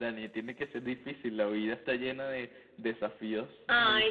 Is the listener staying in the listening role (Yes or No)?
No